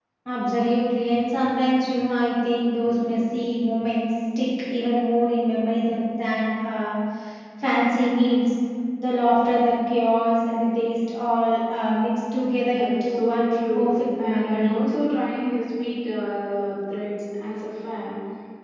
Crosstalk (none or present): present